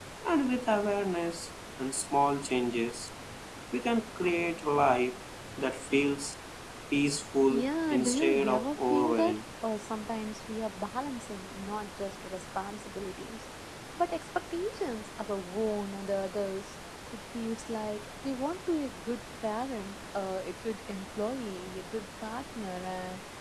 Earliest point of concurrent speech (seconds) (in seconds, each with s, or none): 7.5 s